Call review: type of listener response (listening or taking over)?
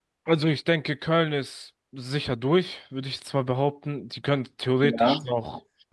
listening